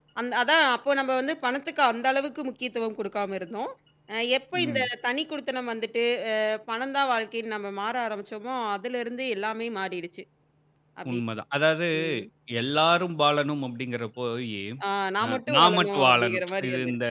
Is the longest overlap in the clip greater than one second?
Yes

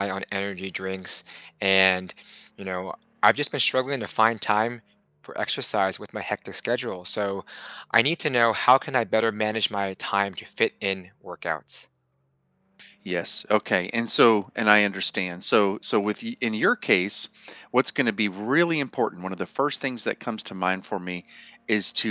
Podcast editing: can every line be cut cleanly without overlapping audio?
Yes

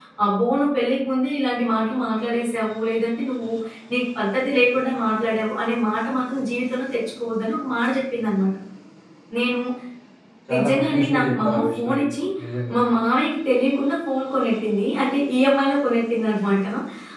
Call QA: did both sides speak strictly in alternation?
No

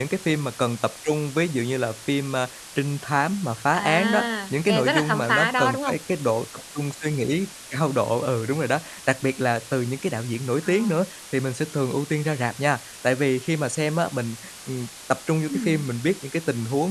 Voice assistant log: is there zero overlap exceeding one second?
No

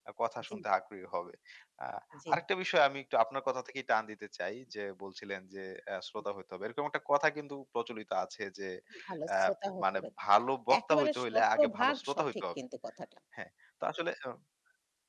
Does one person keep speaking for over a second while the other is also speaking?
Yes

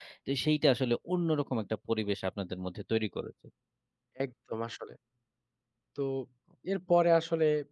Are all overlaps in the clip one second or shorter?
Yes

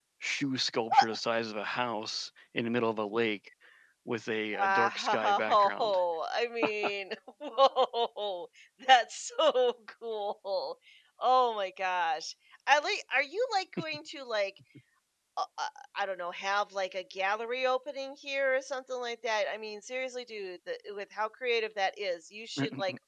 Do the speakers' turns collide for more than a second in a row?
Yes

